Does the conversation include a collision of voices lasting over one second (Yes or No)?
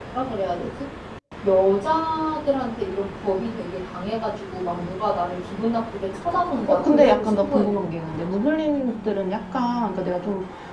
Yes